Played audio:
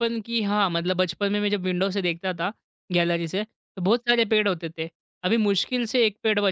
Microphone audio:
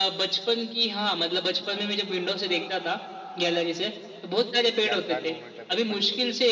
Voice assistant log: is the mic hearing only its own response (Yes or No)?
No